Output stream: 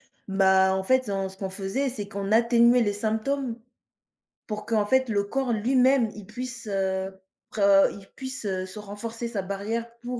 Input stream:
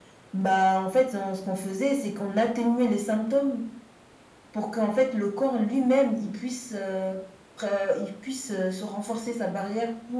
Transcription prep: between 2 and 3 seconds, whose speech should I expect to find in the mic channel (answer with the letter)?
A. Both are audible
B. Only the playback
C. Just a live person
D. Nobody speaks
B